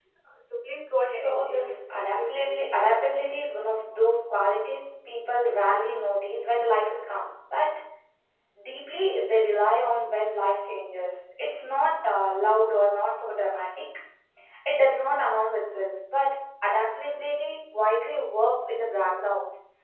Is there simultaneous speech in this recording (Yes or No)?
Yes